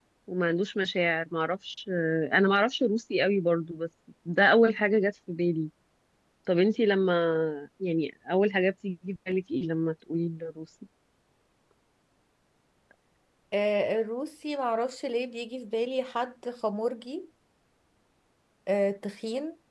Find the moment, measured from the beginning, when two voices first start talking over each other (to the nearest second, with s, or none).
none